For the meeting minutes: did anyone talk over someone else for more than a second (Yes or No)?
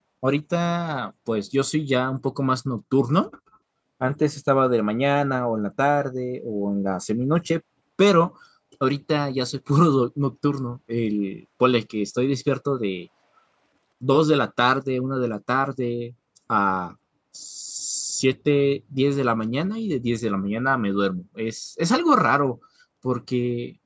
No